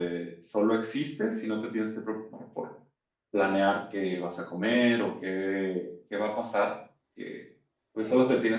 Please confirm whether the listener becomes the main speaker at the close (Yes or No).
No